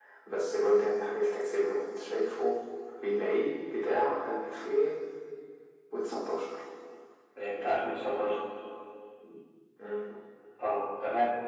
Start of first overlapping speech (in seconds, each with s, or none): none